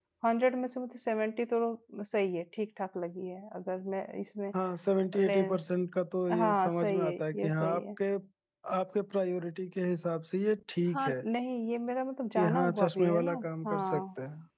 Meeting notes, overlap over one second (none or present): present